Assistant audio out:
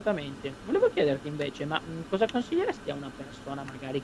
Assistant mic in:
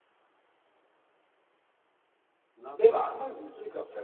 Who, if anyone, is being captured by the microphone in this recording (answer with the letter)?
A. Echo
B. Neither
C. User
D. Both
C